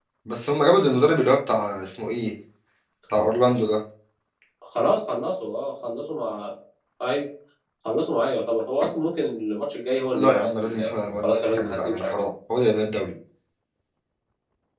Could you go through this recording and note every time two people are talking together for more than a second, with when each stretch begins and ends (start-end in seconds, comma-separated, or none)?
10.1-12.3